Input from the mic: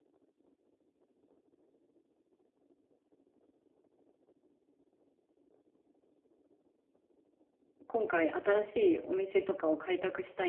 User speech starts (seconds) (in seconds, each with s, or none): 7.9 s